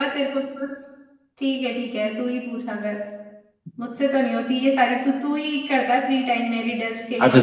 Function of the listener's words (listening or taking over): taking over